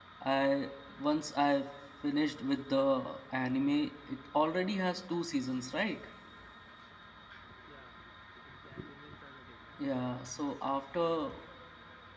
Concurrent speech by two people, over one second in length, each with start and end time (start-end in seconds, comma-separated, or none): none